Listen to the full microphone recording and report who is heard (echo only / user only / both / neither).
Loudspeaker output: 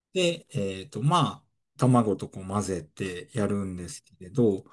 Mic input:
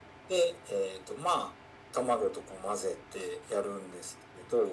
echo only